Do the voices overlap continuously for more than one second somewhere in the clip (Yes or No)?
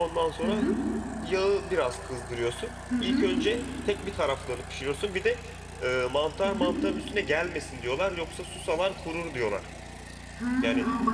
No